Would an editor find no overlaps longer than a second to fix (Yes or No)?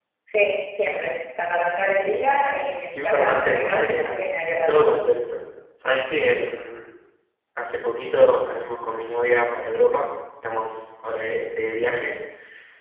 No